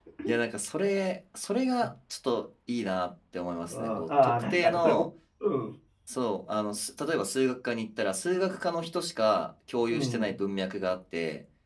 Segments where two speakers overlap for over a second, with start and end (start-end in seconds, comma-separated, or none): 3.7-5.0